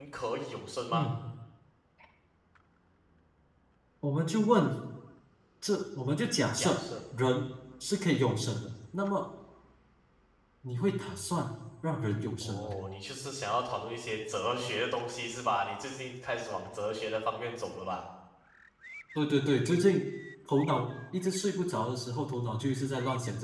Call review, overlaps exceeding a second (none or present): none